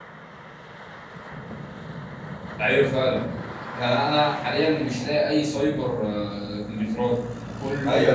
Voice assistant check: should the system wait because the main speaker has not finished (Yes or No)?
No